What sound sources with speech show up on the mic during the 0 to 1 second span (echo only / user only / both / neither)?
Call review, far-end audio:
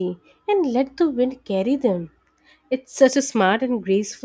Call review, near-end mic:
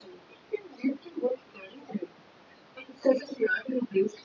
echo only